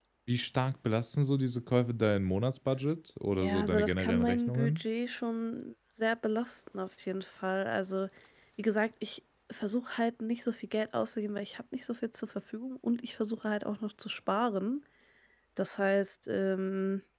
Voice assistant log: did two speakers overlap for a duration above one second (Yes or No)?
Yes